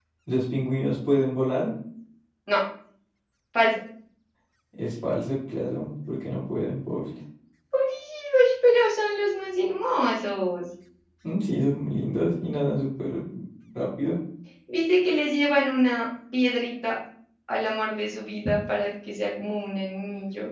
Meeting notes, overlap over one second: none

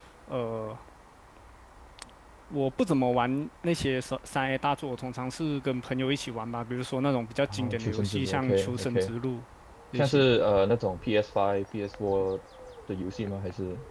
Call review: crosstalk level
present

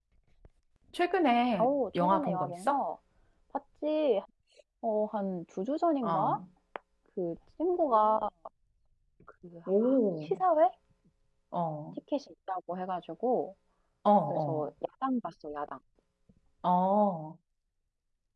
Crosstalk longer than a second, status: present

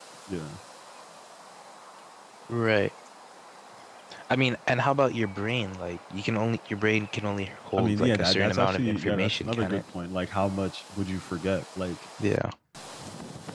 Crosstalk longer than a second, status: present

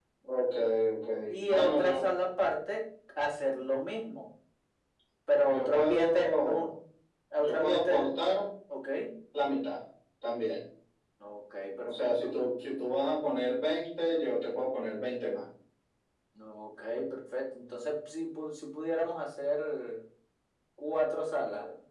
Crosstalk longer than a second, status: present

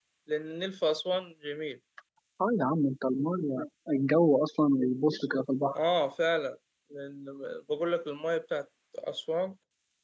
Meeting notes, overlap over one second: none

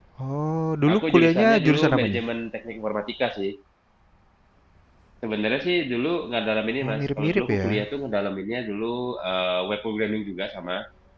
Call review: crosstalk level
present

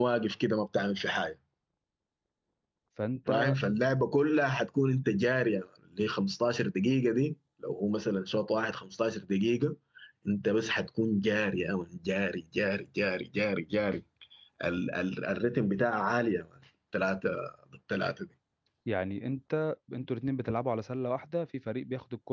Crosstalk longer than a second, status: none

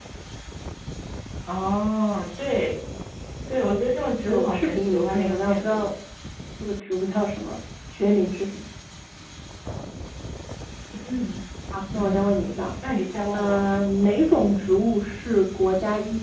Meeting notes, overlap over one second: present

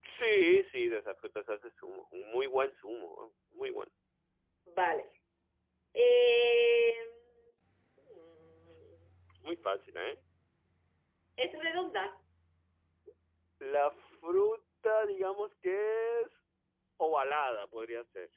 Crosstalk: none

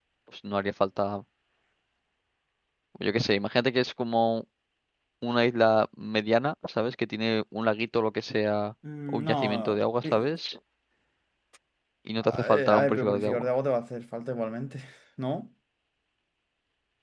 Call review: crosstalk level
present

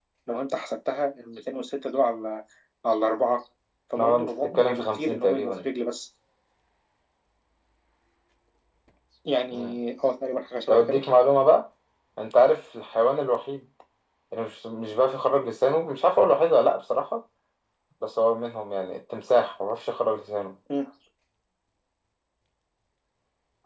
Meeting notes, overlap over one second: present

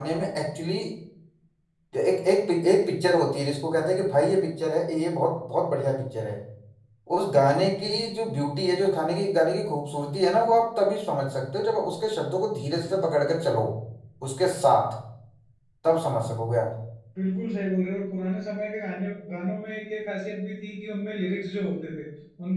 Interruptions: none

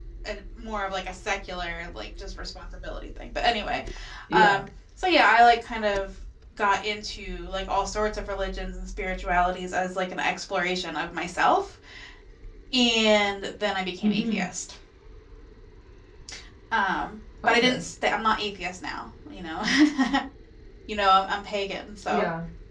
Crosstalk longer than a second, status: none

